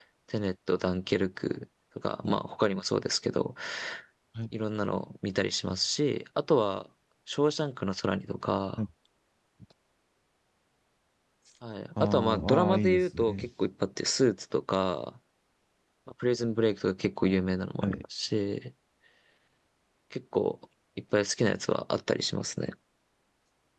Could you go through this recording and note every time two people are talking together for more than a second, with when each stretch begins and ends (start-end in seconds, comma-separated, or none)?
12.0-13.2